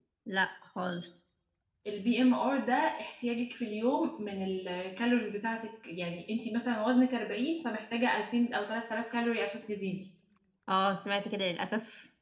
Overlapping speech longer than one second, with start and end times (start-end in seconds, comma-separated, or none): none